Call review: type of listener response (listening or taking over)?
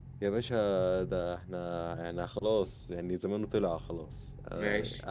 taking over